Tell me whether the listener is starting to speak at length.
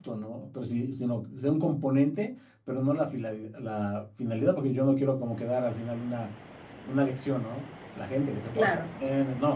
No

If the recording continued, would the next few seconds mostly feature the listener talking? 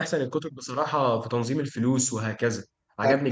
Yes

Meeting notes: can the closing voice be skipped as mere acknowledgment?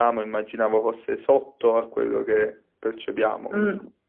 No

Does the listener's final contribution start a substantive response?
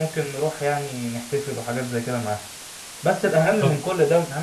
No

